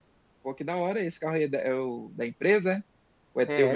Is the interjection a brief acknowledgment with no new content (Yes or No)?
No